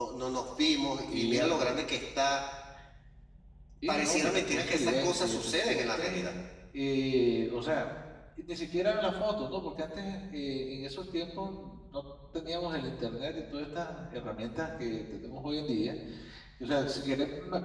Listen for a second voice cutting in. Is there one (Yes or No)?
Yes